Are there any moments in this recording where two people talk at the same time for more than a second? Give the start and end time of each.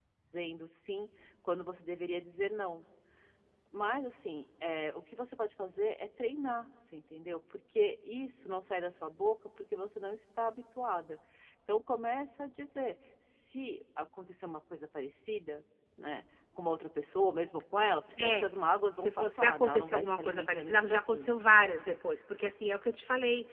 19.0-21.7

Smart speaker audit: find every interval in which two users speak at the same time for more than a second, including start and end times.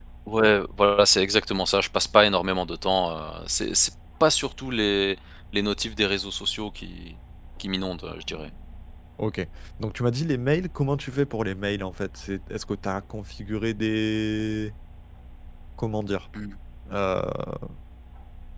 none

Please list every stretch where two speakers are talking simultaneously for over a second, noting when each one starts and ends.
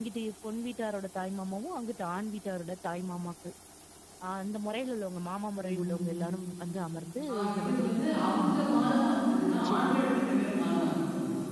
7.3-8.9

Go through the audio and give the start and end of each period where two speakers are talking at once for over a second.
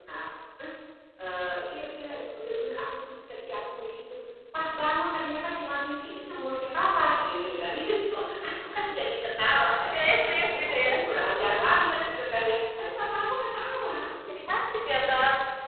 none

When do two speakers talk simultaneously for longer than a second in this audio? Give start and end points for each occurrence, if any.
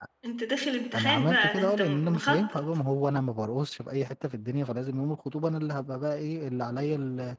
0.9-2.6

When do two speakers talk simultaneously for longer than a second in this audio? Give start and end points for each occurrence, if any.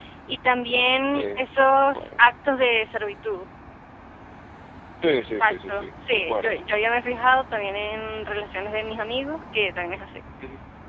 5.4-6.6

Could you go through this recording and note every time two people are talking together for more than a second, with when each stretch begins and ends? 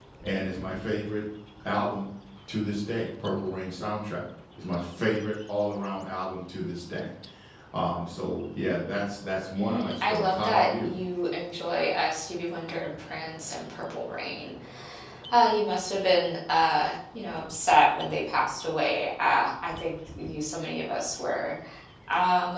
9.6-10.9

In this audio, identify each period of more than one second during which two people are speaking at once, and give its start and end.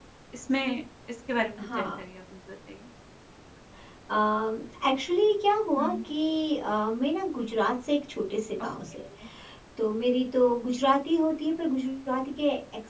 none

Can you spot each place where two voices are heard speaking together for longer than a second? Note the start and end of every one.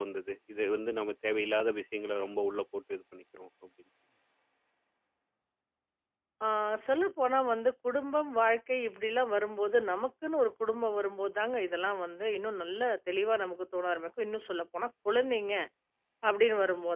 none

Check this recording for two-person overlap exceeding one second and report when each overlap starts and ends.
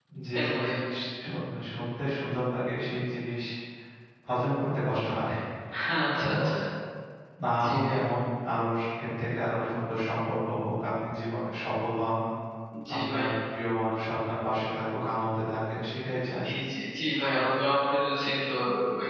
none

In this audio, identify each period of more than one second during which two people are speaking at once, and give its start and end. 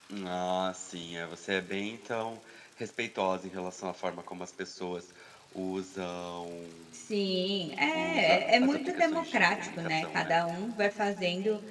7.9-10.4

